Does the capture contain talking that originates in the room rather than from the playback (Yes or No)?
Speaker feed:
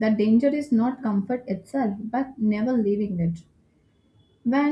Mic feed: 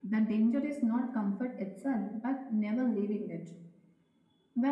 No